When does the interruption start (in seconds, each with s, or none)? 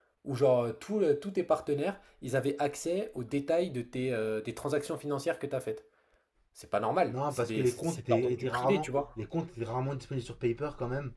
7.1 s